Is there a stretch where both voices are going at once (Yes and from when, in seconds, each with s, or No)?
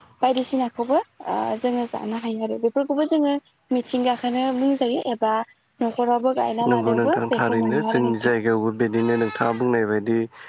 Yes, from 6.7 s